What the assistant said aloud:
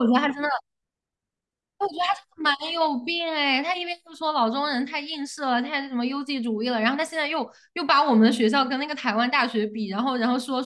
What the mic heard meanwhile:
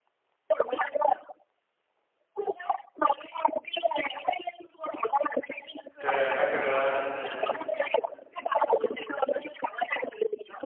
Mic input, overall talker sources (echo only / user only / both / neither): both